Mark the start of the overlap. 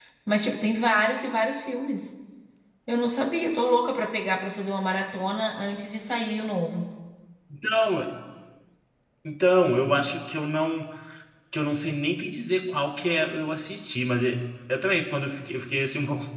none

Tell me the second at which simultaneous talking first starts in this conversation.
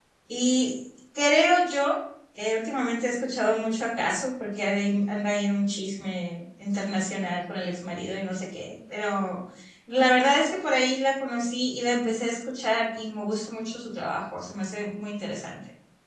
none

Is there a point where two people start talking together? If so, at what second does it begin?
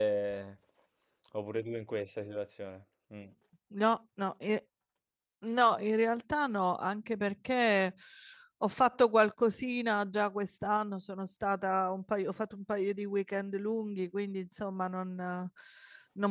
none

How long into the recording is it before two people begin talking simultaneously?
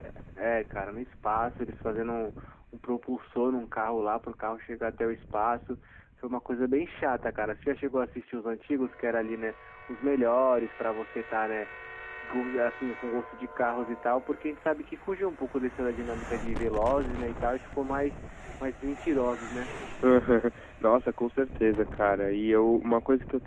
none

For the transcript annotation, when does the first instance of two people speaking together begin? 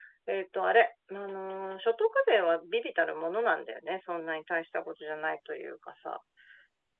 none

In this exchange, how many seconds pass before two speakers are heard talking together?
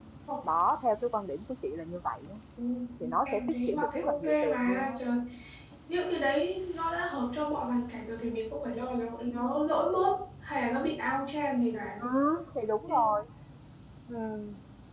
3.2 s

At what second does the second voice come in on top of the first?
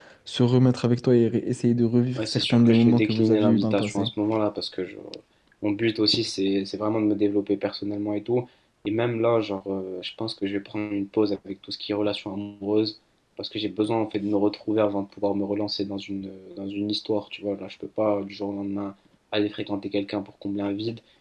2.2 s

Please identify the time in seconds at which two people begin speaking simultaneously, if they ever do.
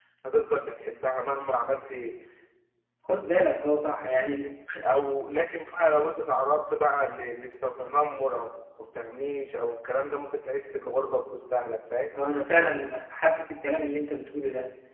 none

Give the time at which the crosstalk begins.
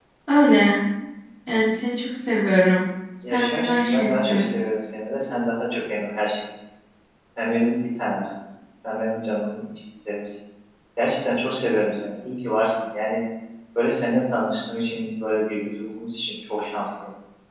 3.2 s

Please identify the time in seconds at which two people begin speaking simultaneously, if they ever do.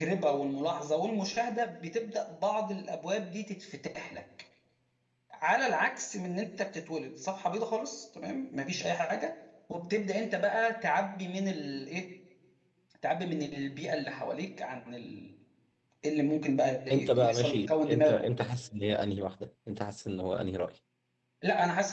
16.9 s

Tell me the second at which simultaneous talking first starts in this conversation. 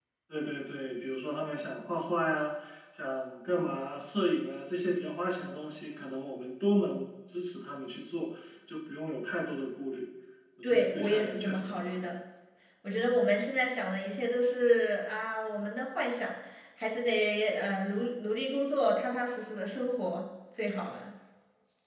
10.6 s

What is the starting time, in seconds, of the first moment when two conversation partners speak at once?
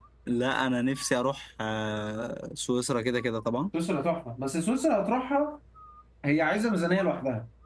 none

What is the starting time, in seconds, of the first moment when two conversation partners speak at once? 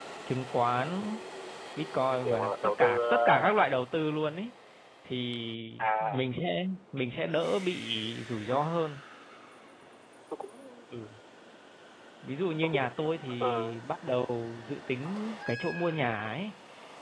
2.2 s

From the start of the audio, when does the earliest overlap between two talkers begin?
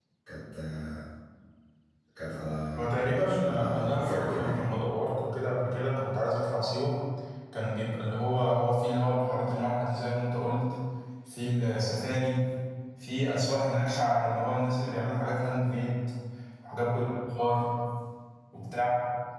3.0 s

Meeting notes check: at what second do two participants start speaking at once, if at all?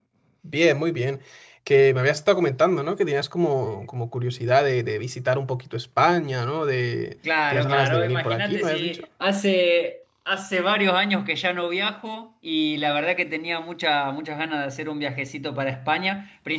7.5 s

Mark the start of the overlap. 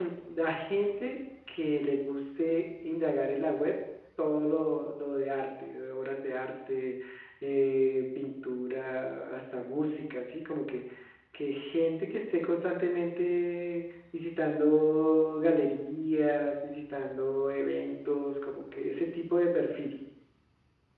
none

